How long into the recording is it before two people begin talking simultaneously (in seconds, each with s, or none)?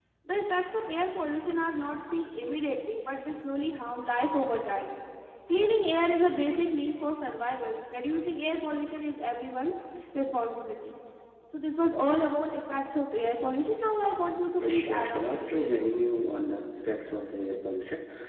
14.6 s